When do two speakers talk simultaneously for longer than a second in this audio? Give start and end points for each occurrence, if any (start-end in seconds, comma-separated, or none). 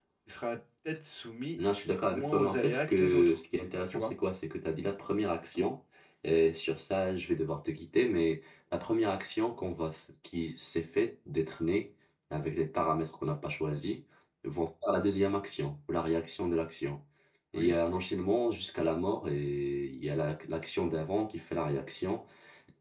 2.1-3.4